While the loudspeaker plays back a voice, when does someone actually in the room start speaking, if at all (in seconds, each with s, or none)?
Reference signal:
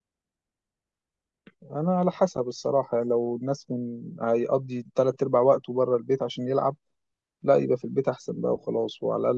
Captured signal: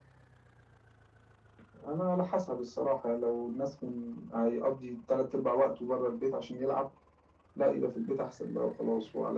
none